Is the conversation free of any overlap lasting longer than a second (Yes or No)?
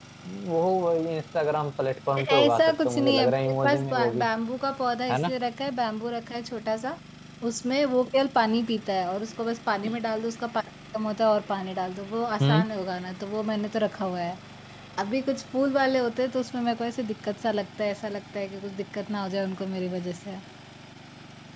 No